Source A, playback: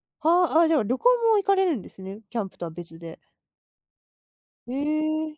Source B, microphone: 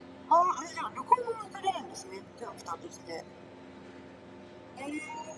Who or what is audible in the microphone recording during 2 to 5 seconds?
echo only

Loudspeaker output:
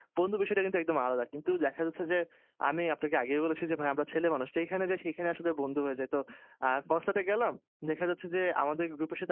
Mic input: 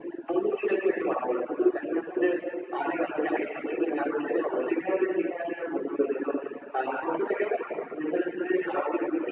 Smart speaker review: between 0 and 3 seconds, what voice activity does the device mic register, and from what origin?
echo only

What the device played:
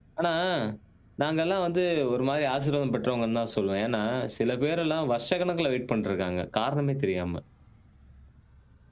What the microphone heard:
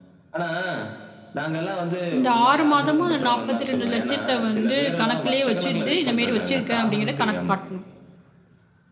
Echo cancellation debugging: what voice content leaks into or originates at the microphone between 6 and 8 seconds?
both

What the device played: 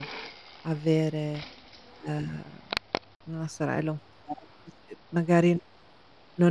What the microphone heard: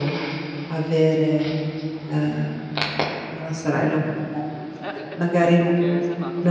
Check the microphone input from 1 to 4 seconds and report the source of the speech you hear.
echo only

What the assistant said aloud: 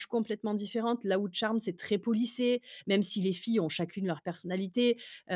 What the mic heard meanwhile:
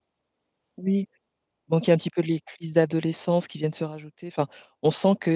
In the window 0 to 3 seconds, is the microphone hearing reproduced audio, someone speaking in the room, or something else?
user only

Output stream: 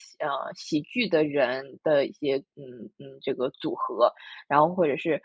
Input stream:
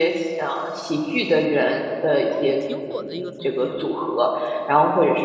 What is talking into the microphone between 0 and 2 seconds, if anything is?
echo only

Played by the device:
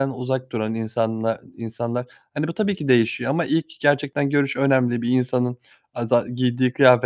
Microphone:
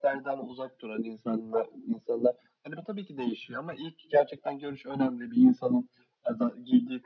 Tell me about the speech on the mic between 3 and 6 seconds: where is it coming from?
echo only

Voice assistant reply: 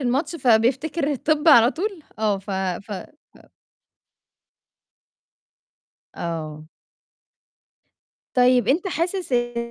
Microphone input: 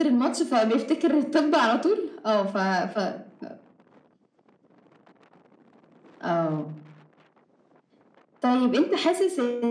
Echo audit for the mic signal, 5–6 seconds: neither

